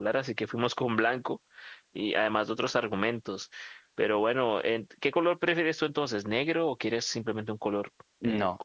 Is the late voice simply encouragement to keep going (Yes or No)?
No